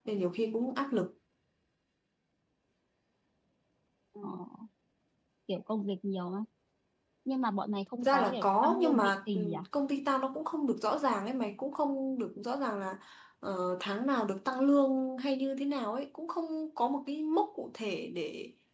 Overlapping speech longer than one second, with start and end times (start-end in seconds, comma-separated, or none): 8.0-9.6